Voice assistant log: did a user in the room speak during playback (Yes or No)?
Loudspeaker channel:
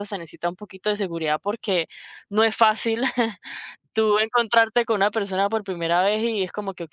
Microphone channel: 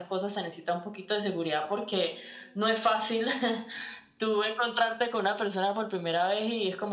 No